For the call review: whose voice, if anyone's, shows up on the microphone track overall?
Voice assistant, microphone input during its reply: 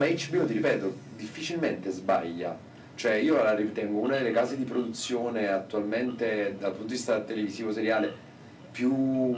echo only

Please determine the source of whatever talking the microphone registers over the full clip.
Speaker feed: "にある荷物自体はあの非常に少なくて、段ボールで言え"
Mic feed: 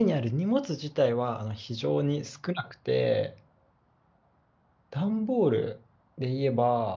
echo only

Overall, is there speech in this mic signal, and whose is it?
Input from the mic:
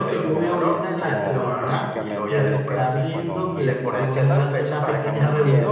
both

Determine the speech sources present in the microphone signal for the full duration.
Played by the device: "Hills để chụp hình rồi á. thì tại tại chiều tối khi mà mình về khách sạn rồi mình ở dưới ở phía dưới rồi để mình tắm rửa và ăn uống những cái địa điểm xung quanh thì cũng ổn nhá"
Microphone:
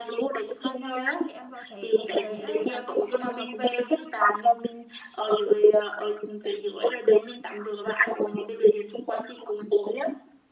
both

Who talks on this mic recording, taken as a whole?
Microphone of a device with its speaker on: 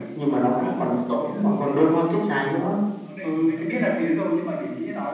both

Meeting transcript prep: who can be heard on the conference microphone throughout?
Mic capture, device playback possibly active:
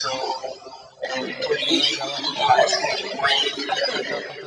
both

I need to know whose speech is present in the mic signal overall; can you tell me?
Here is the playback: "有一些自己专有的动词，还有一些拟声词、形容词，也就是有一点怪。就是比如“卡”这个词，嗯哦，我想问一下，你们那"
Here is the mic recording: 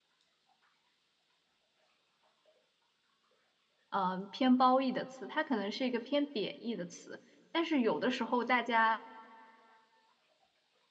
user only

